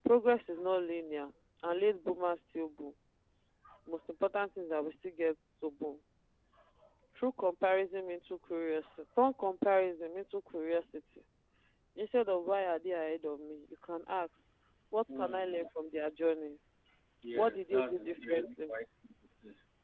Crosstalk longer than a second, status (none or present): present